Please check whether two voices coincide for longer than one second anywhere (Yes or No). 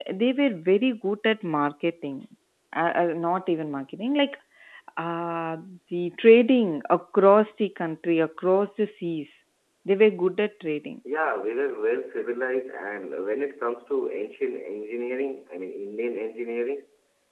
No